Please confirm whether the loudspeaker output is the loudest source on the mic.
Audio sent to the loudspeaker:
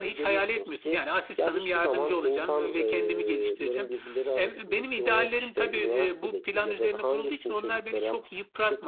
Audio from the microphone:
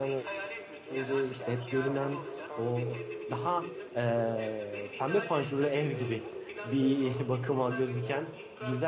No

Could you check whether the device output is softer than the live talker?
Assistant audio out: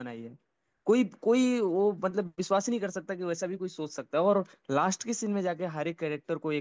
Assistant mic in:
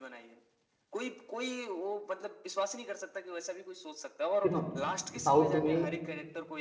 Yes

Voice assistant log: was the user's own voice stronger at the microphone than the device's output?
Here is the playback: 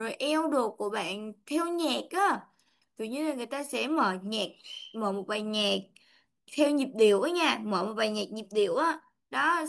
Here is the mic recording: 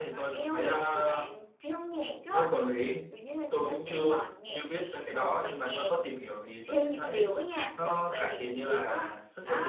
Yes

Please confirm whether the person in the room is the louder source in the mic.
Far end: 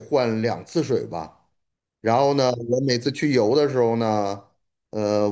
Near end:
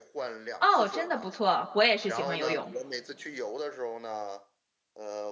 Yes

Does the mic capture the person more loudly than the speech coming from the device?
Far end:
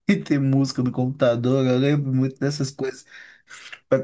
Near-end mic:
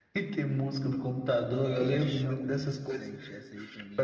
No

